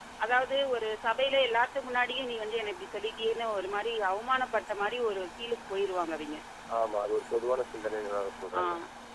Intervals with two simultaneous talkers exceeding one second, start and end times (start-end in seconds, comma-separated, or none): none